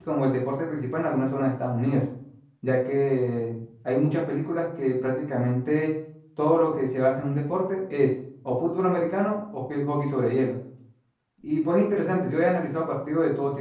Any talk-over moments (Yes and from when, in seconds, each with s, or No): No